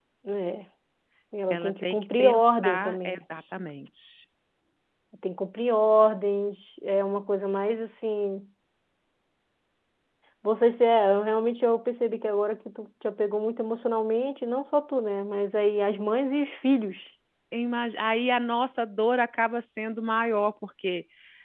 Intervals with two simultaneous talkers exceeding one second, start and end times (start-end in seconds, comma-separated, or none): 1.5-3.2